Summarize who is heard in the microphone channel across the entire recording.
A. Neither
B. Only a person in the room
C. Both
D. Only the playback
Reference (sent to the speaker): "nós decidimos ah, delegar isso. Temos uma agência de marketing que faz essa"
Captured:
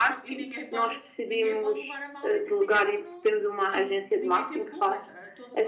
C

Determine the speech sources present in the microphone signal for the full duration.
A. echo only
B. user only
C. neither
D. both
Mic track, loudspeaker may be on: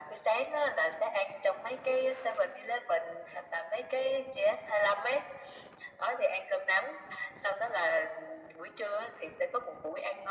A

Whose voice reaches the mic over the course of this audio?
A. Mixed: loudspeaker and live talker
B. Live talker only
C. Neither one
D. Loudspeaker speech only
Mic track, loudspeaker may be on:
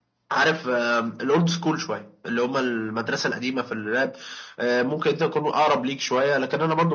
D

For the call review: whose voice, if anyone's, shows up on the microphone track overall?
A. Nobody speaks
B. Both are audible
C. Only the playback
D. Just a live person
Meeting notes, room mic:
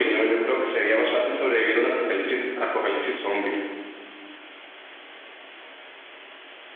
C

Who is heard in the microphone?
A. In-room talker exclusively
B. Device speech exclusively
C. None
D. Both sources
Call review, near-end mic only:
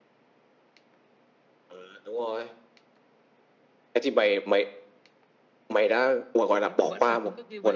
D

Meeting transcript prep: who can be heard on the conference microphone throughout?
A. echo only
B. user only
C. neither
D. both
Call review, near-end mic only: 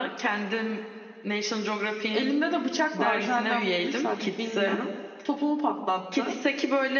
D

